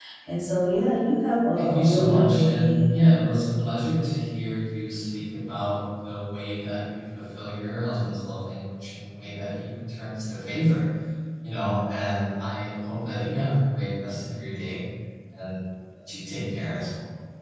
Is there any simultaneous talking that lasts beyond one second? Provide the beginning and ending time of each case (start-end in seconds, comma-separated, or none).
1.5-2.9